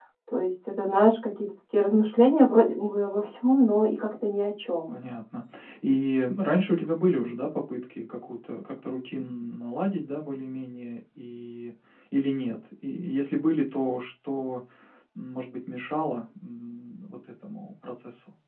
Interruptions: none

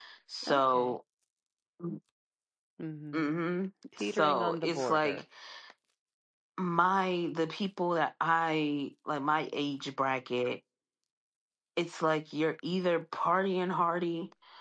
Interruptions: present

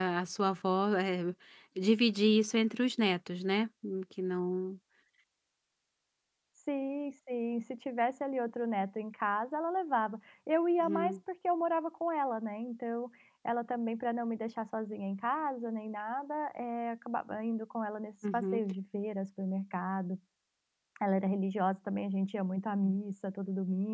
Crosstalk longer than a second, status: none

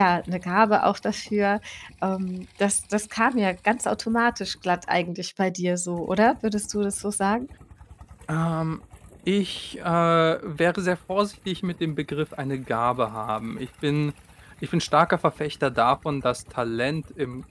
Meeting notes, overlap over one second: none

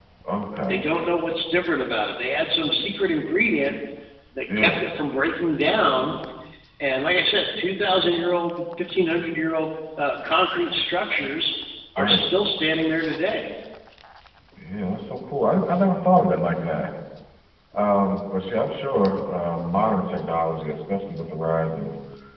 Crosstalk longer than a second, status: none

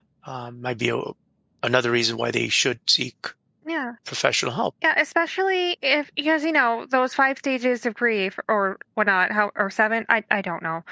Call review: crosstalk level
none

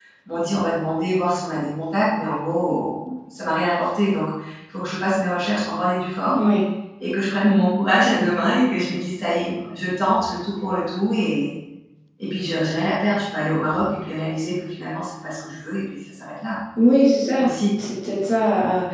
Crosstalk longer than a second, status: none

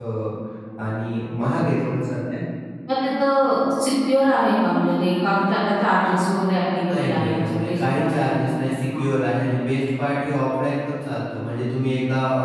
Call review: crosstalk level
present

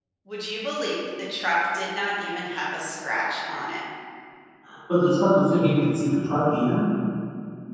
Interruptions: none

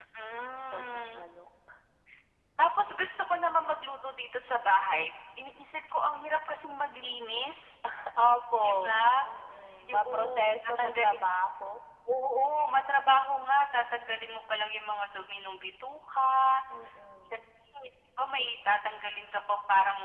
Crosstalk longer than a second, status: present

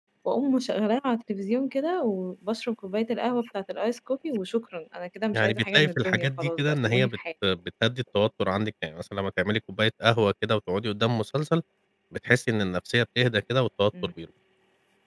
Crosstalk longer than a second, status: present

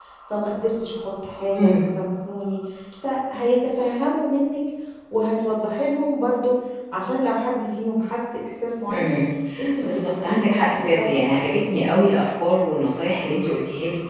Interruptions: present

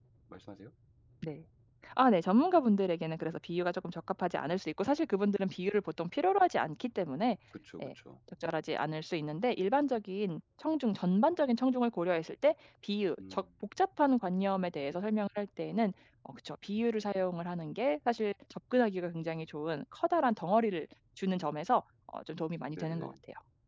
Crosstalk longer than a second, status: none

